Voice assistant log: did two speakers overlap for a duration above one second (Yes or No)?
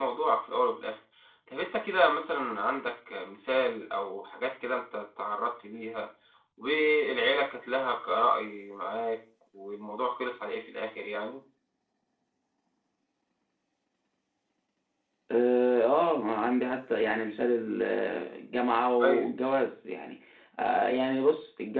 No